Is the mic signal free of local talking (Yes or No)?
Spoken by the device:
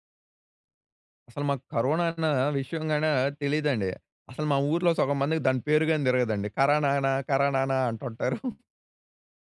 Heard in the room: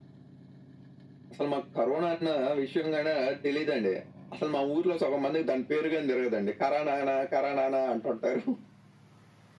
Yes